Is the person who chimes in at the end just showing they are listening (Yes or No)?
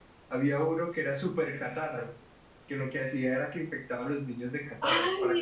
No